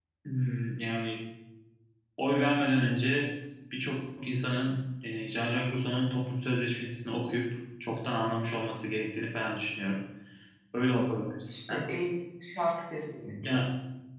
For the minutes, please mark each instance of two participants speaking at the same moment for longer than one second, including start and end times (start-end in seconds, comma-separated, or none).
none